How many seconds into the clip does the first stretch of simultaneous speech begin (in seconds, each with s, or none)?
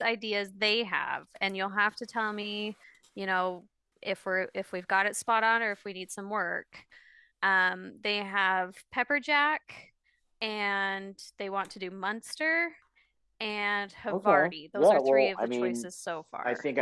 14.1 s